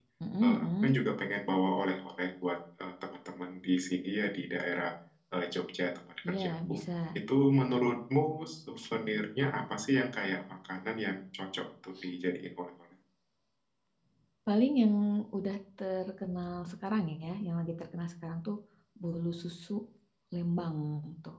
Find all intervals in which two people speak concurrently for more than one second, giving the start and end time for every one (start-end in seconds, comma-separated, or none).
none